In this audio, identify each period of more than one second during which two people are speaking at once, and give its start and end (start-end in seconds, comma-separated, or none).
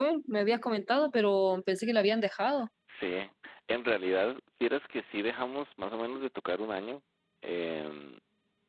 none